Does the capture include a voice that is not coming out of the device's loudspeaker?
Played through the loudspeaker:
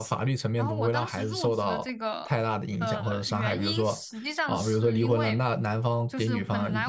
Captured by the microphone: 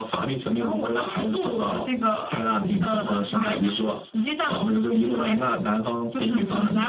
No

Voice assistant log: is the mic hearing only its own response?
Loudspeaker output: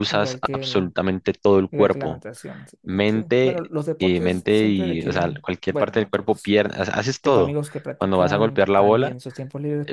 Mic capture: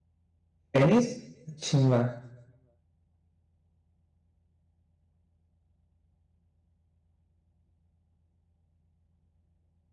No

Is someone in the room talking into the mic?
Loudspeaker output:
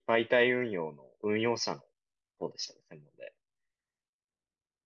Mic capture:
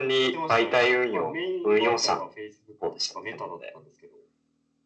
Yes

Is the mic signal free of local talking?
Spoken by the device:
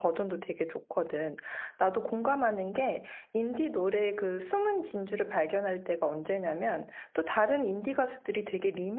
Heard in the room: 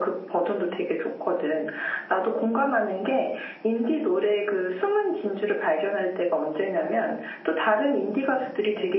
Yes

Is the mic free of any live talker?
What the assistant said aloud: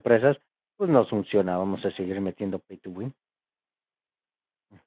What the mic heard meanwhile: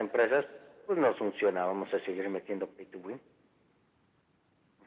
Yes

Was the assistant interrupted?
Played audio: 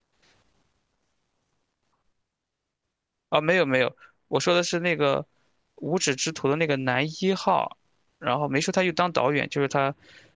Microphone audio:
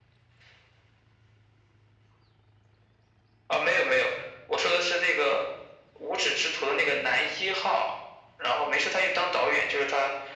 No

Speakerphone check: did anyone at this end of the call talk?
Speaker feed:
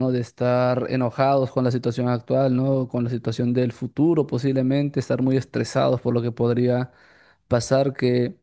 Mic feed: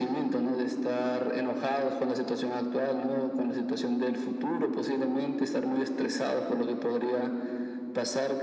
No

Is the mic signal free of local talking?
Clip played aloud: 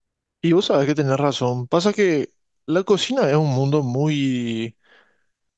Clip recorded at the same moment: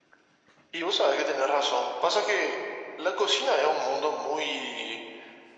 Yes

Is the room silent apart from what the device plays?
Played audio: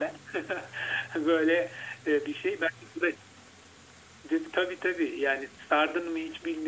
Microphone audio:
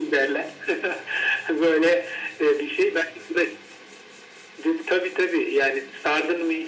Yes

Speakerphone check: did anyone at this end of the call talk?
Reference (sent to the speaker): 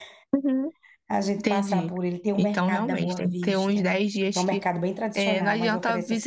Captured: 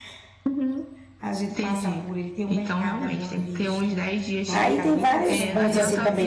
Yes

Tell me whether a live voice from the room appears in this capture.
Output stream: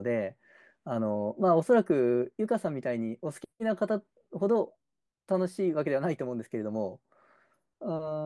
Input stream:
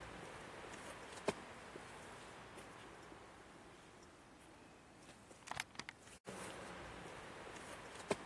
No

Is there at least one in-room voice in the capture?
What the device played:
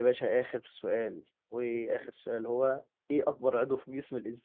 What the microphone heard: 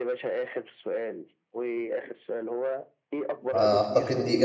Yes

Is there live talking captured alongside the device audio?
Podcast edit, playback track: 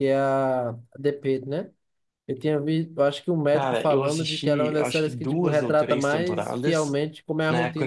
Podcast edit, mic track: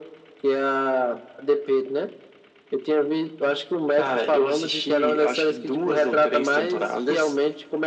No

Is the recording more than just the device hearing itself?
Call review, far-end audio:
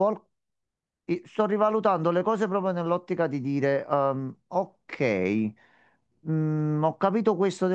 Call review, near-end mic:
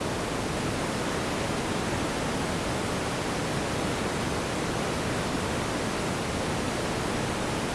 No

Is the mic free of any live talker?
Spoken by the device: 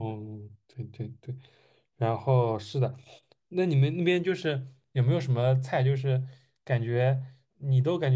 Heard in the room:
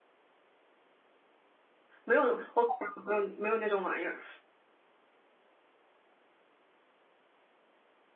No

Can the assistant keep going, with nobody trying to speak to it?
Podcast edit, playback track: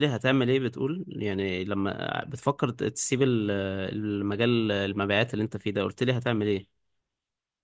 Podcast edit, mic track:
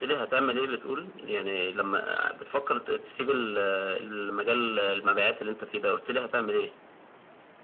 Yes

